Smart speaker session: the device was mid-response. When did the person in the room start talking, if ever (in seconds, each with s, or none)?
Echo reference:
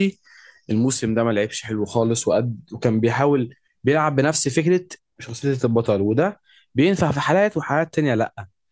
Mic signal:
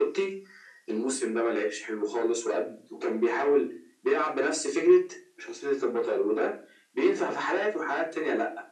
none